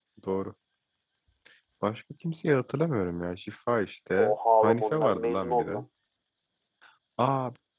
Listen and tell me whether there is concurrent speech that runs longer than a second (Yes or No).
Yes